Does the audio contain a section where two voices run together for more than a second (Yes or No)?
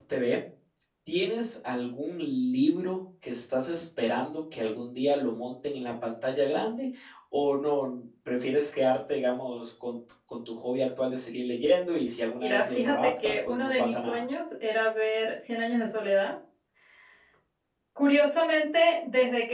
Yes